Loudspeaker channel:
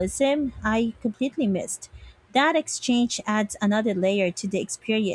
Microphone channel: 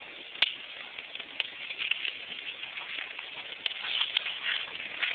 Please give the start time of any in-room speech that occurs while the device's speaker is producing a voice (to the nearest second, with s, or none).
none